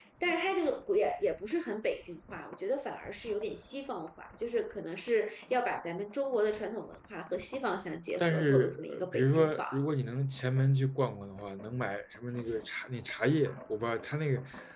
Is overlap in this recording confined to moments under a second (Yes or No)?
No